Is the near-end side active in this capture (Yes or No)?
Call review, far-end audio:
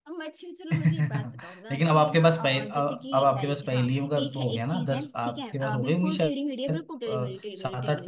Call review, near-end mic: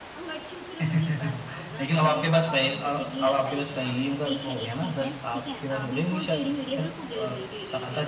No